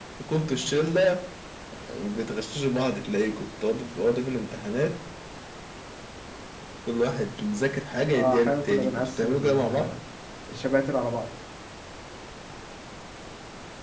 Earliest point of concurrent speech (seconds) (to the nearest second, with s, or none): 8 s